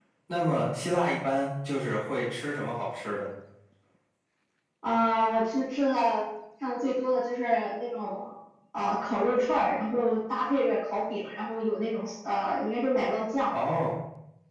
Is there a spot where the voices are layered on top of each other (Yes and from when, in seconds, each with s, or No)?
No